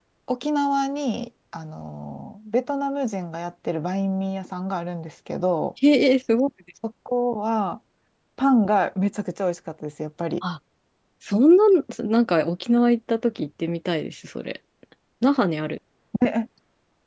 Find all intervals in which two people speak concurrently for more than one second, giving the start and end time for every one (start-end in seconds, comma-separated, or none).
none